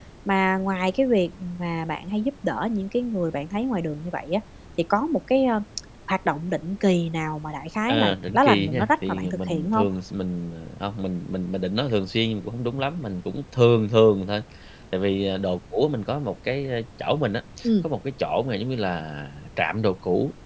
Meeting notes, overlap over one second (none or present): present